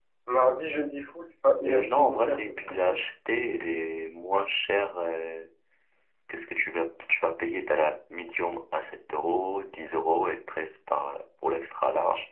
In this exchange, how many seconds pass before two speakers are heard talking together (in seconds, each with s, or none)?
1.6 s